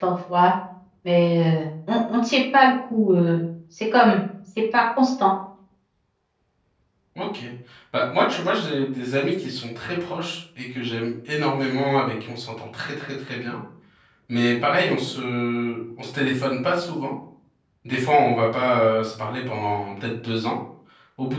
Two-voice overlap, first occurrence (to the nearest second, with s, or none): none